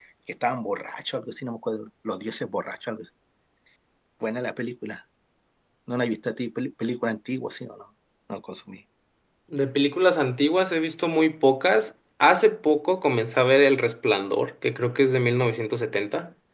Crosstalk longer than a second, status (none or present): none